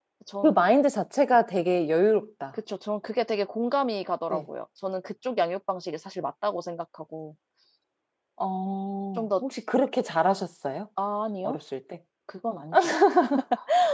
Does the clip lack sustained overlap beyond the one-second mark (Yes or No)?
Yes